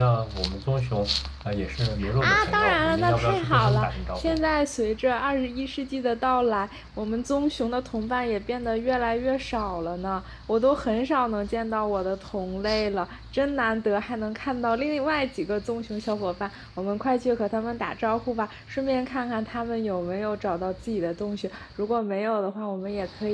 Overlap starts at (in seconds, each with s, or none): 2.0 s